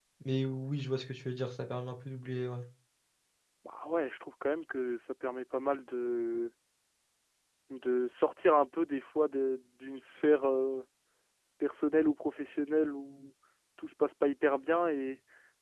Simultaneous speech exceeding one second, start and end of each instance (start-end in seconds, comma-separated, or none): none